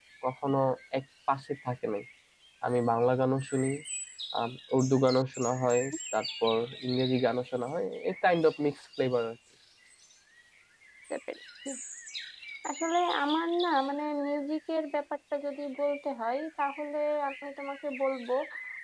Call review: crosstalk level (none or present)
none